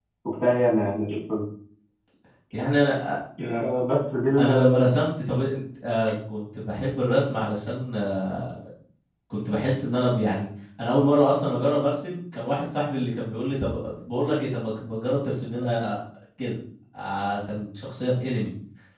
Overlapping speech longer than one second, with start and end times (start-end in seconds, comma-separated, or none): none